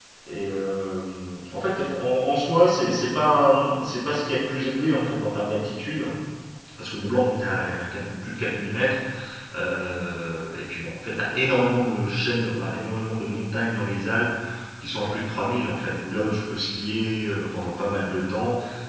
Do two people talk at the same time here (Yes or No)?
No